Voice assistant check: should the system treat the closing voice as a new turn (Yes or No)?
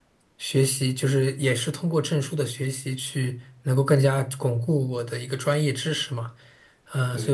No